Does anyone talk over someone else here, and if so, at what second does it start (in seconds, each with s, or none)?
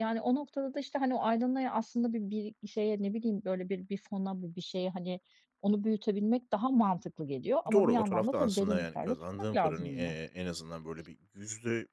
7.7 s